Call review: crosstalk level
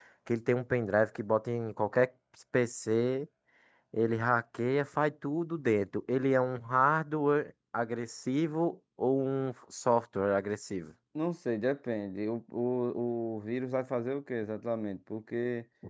none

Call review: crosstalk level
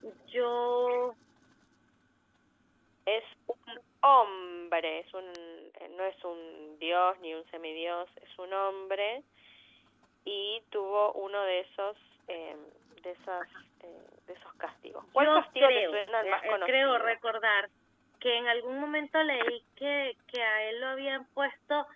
present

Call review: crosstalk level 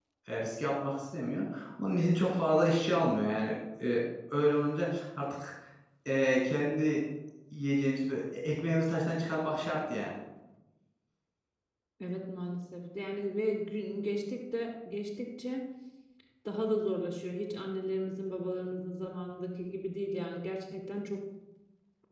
none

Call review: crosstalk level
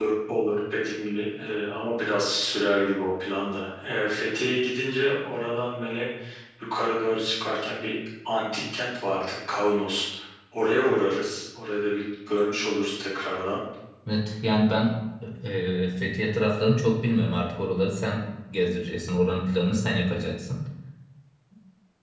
none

